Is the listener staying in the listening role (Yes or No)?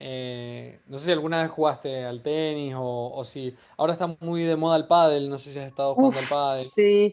No